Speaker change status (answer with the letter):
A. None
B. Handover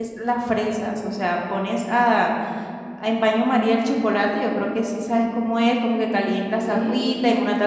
A